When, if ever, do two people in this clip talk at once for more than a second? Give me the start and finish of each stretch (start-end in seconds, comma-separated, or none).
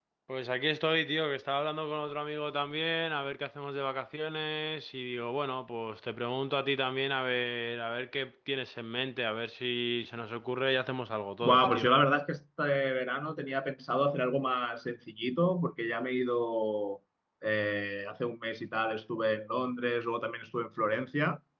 none